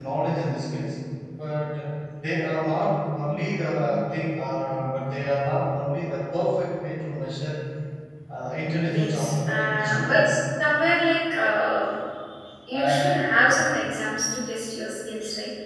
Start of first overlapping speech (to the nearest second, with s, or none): 9 s